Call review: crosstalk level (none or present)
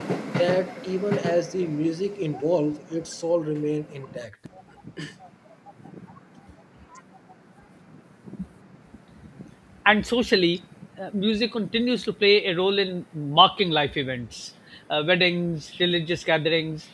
none